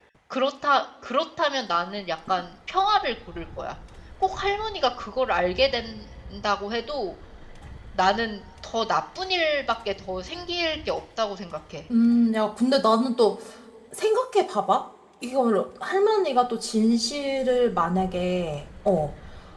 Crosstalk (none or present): none